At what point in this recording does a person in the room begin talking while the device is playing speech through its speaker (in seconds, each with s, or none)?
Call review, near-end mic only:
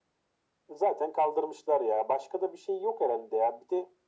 none